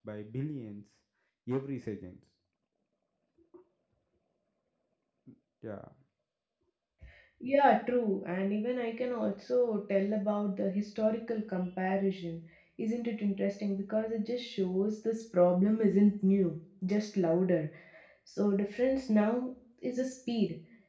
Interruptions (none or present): none